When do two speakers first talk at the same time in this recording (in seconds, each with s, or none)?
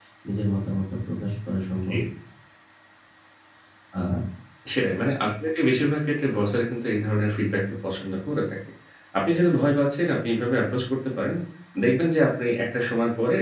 none